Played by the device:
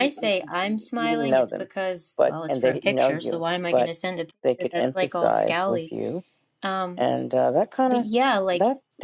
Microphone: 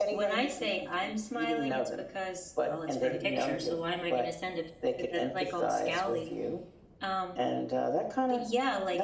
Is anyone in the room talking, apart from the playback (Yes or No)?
No